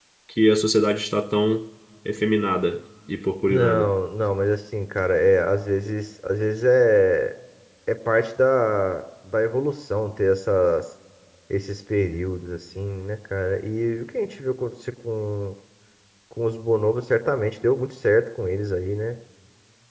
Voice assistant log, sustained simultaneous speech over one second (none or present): none